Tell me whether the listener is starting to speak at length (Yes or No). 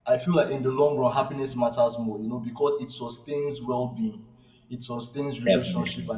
No